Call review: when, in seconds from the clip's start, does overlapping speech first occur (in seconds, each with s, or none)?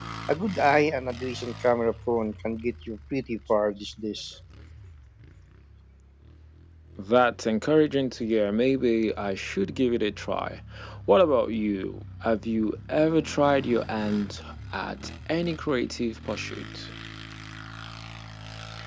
none